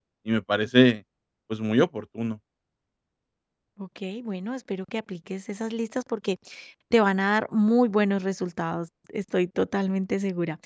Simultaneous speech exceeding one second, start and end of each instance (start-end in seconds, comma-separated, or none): none